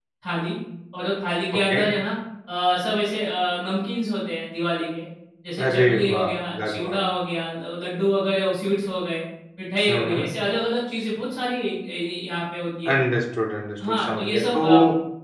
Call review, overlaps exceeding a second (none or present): present